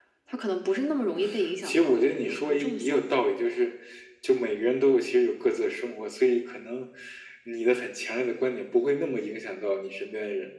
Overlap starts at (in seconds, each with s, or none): 1.6 s